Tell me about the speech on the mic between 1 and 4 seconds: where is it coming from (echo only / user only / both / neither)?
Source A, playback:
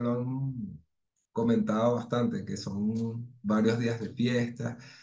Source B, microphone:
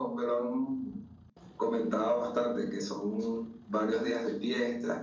echo only